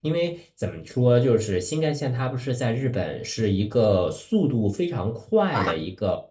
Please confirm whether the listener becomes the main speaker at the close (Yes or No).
No